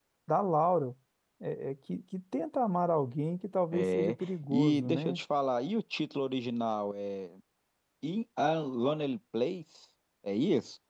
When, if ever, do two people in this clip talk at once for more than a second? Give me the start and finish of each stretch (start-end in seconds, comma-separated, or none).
3.7-5.2